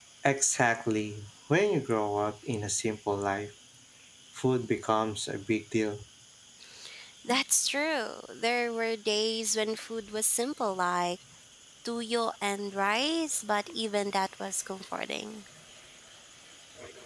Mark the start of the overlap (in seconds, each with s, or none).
none